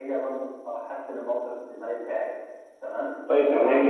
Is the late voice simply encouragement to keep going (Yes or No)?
No